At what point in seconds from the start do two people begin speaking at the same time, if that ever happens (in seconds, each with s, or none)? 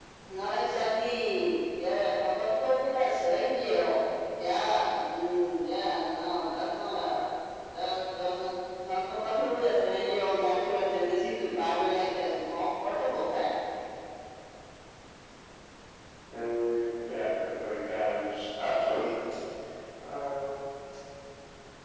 none